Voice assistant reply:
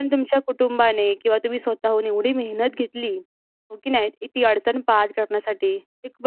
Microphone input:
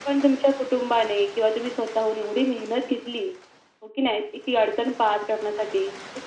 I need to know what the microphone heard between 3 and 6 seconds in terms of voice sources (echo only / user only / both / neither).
echo only